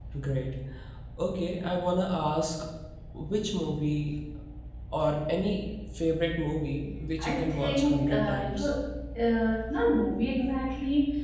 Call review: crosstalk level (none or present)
present